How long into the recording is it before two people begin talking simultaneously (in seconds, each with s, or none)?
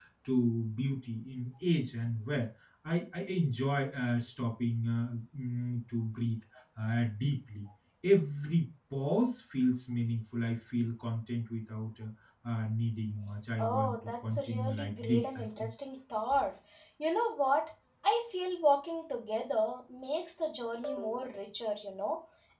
13.6 s